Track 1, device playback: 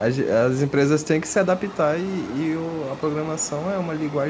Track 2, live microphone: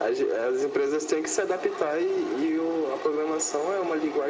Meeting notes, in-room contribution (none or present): none